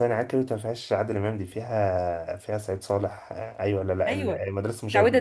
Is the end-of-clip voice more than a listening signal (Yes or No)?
Yes